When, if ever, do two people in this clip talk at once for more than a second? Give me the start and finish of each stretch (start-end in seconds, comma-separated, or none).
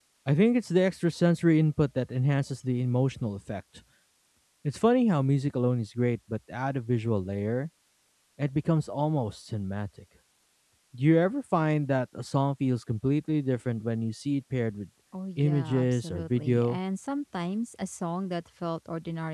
15.4-16.8